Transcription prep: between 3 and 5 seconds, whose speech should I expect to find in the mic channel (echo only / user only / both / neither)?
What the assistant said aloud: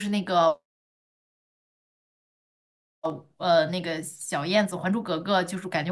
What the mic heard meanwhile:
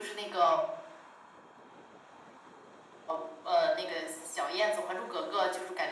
echo only